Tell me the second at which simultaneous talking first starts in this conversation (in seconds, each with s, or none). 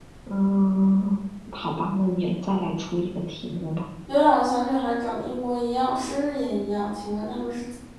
none